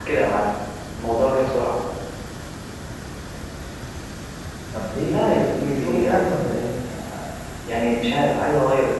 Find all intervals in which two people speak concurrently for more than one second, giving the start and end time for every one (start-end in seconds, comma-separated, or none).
5.1-6.7